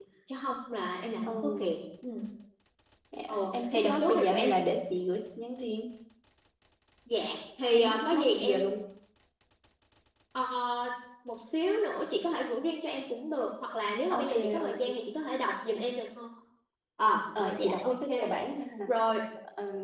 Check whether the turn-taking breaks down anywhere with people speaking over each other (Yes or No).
Yes